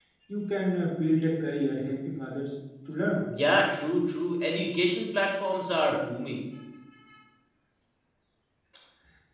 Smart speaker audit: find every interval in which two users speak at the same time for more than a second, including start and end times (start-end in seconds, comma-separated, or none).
none